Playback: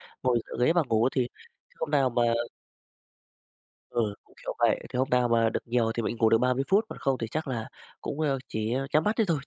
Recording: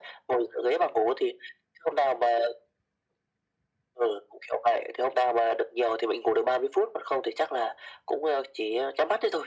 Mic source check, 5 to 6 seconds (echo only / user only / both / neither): echo only